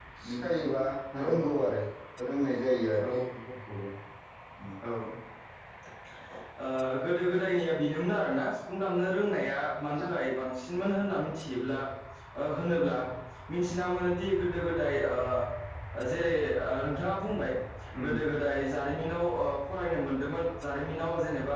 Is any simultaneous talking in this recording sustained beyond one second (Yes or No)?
No